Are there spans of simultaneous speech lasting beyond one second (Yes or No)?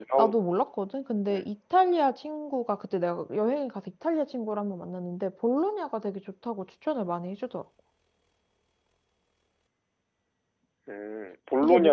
No